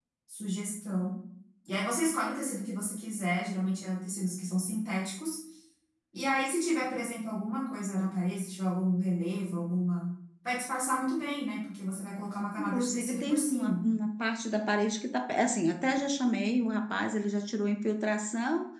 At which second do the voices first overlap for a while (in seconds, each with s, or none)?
12.6 s